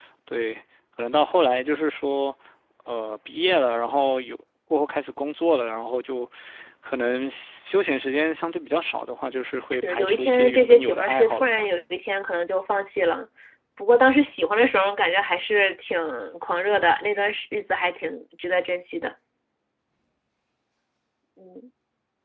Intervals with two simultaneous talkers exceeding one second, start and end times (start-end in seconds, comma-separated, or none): 9.7-11.7